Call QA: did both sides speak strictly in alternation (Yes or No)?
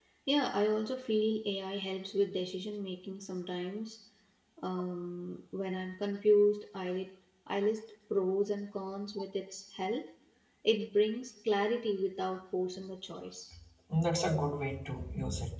Yes